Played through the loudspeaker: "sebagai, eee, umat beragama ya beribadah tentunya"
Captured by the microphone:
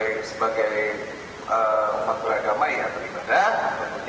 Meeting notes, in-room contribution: none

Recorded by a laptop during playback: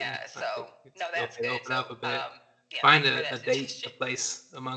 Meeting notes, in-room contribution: present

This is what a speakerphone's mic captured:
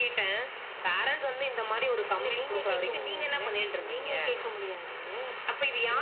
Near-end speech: none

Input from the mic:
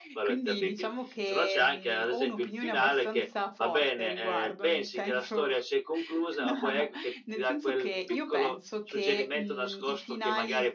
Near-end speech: present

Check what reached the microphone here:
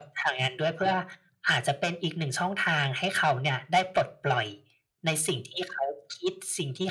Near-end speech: none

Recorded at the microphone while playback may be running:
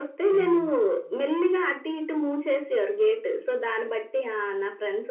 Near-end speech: present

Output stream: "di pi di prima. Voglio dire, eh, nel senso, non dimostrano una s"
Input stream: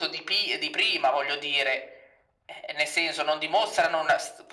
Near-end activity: none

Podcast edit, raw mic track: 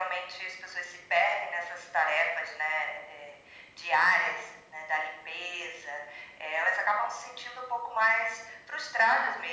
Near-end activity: none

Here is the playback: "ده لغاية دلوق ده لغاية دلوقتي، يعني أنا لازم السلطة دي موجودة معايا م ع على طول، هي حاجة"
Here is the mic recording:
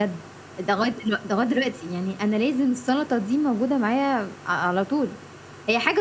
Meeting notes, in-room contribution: none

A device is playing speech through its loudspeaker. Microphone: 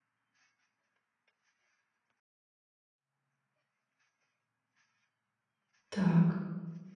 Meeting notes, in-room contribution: present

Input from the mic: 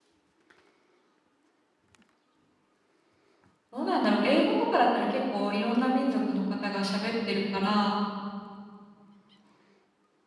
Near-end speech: present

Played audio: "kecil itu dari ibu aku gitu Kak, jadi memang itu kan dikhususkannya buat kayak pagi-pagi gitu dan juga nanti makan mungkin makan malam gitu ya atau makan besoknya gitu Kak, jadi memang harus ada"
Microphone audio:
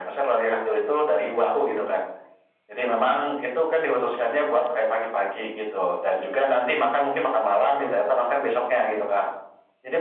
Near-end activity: none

